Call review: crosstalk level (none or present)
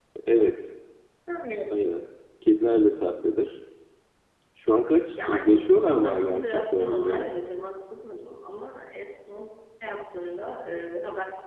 present